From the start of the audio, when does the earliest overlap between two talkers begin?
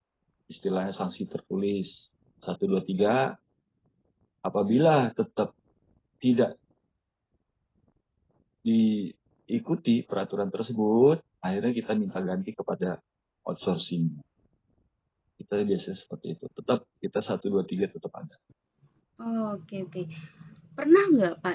none

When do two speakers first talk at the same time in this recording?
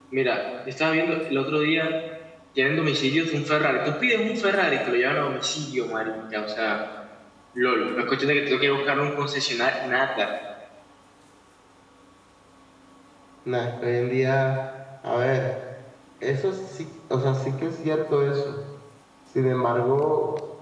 none

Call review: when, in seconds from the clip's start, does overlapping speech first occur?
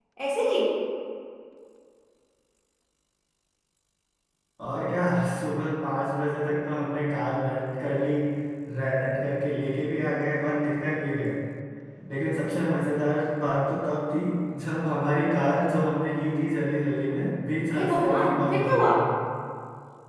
17.7 s

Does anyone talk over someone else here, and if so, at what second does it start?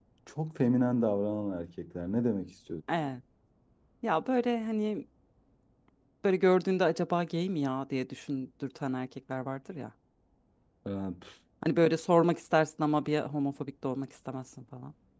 none

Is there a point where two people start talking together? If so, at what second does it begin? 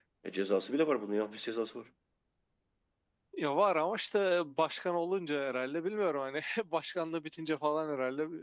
none

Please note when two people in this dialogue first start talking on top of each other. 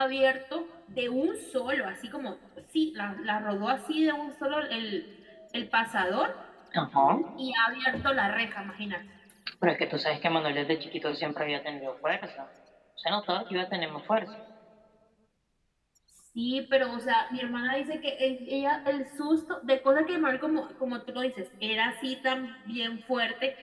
none

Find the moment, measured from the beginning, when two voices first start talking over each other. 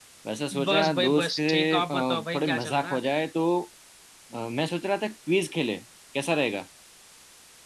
0.7 s

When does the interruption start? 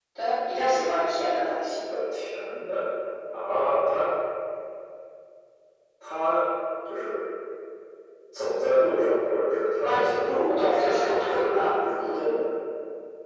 9.8 s

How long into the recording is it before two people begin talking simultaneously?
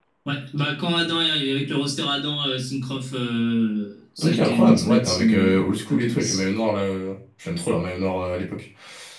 4.2 s

